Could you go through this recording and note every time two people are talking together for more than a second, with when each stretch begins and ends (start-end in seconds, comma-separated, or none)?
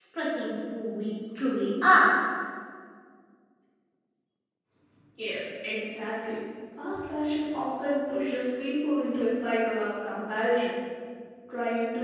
none